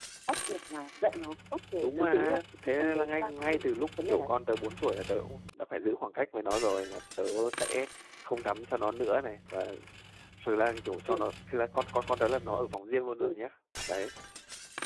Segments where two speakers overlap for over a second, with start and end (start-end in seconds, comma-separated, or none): 1.8-3.6